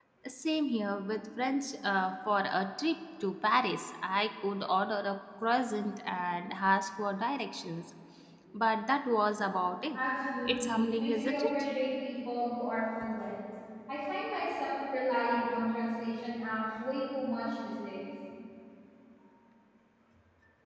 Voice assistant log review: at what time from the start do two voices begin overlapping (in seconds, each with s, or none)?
10.5 s